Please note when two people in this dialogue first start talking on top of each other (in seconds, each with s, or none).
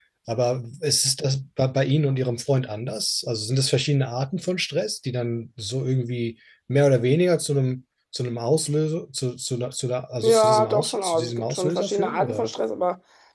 10.2 s